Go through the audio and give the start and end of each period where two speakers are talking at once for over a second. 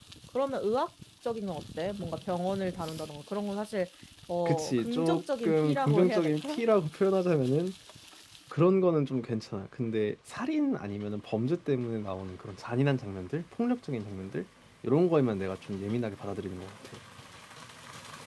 4.5-6.6

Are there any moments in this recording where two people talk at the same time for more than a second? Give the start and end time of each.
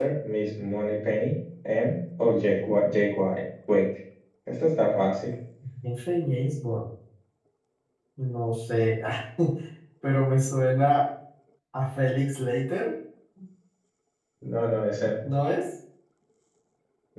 none

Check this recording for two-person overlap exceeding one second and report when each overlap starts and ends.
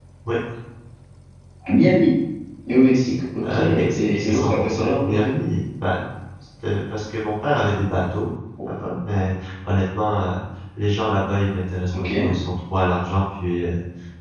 3.5-5.3

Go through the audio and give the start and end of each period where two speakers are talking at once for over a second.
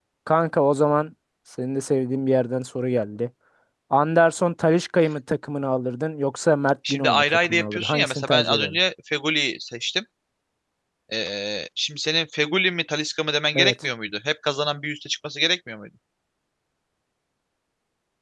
6.9-8.8

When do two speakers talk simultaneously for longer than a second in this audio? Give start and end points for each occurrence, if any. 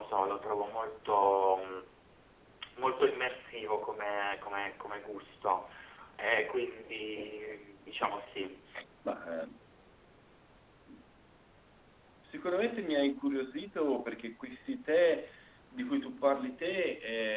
none

